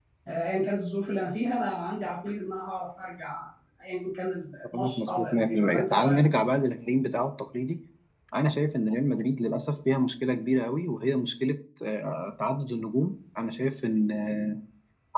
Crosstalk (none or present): present